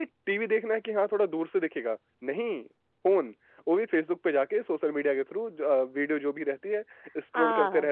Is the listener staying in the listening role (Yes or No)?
No